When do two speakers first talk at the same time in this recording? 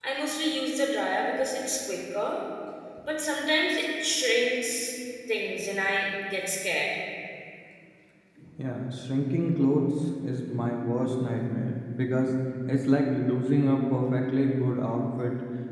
none

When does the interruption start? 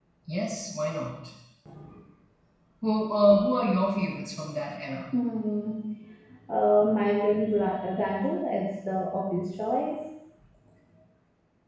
none

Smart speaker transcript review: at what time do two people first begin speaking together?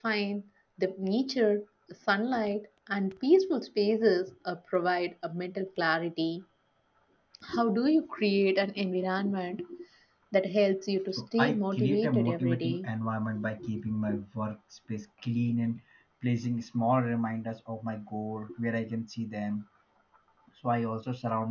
11.2 s

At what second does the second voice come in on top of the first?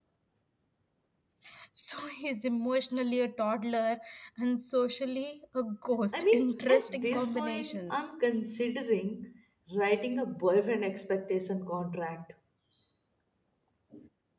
6.1 s

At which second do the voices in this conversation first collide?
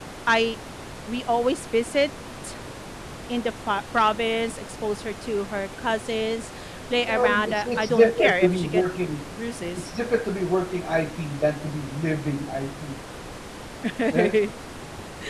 7.1 s

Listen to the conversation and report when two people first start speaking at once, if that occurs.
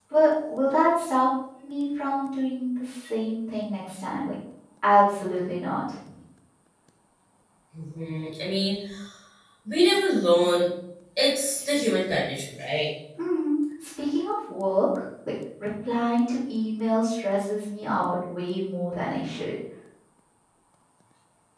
none

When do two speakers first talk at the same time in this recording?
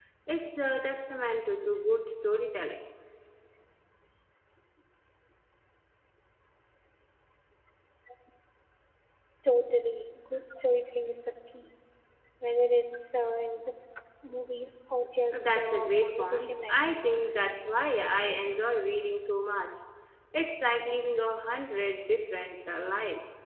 15.3 s

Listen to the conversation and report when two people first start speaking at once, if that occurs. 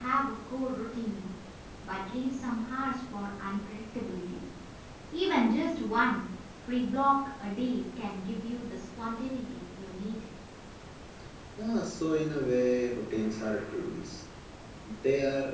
none

